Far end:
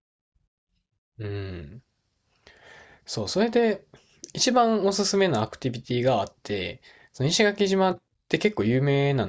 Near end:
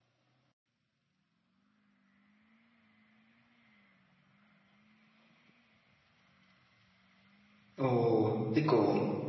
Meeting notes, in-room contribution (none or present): present